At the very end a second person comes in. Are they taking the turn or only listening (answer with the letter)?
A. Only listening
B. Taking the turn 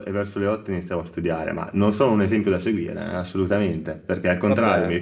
A